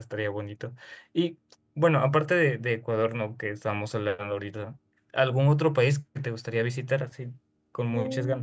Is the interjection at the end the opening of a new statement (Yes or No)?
Yes